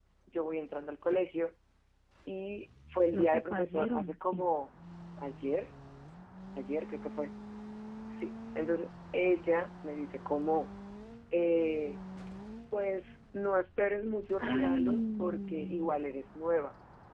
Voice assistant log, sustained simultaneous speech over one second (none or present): present